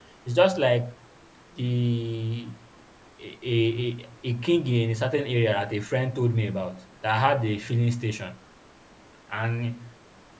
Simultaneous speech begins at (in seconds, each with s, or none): none